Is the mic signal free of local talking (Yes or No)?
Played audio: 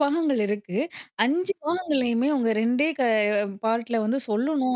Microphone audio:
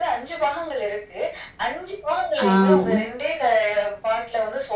No